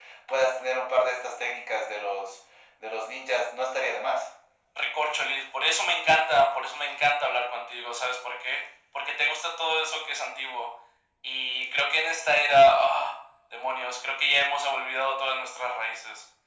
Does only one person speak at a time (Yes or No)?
Yes